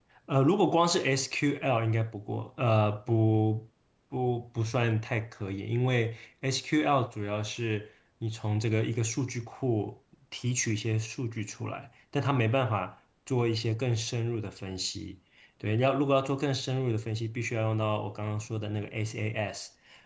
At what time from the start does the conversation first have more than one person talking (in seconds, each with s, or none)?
none